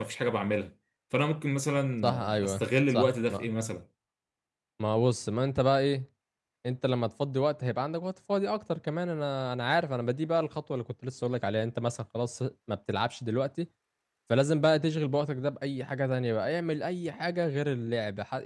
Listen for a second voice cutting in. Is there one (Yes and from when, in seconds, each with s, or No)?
Yes, from 2.0 s